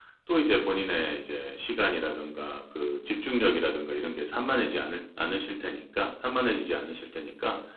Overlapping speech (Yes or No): No